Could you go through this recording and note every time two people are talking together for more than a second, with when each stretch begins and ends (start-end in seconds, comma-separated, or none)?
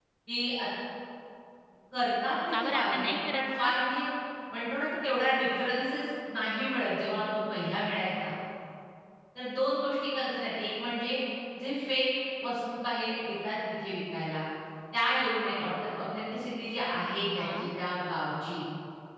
2.5-3.7